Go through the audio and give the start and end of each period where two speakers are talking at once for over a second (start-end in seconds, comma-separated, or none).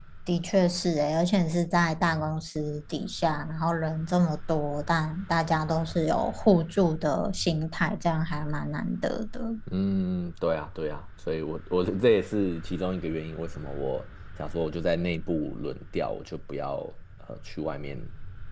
none